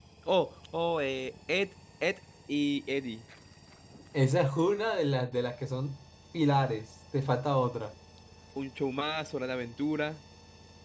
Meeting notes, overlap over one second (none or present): none